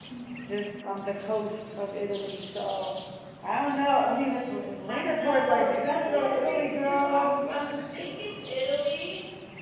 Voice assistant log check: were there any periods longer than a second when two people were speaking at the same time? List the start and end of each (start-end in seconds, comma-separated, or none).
4.9-7.3